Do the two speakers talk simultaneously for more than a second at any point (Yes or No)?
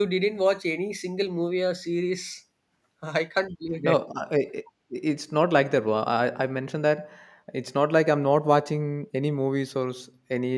No